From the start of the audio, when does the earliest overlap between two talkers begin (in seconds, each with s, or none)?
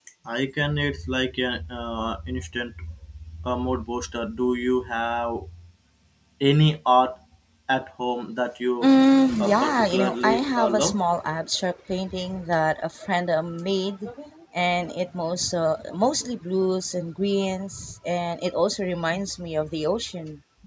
9.4 s